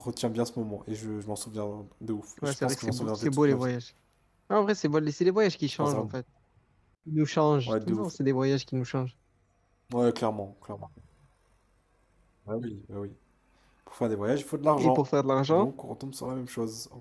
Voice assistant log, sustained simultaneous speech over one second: present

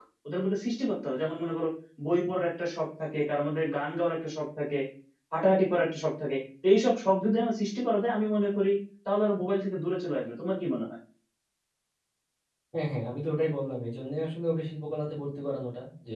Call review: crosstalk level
none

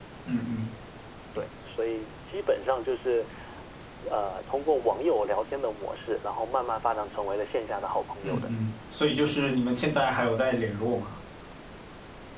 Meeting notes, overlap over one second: none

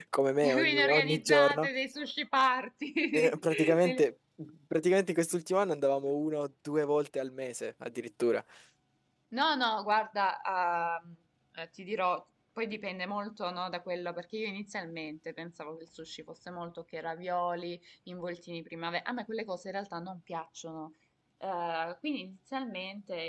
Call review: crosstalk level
present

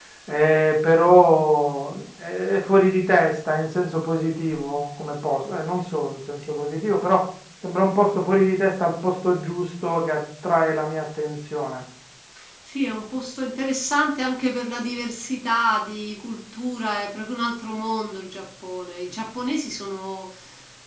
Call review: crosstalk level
none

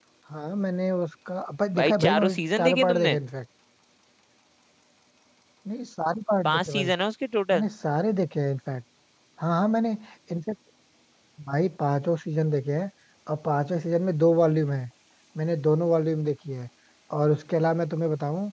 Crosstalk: present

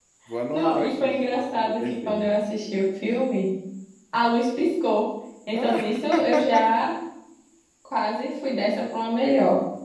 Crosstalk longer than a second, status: present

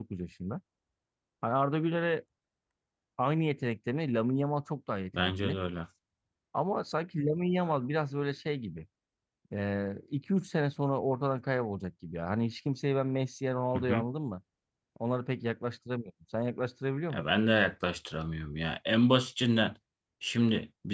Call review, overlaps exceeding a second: none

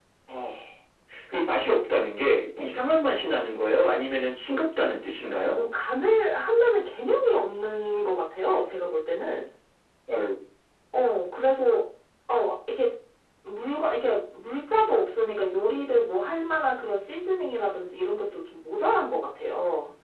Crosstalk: none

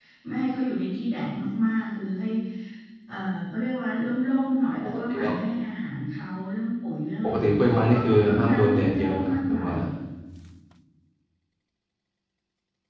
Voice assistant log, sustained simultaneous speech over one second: present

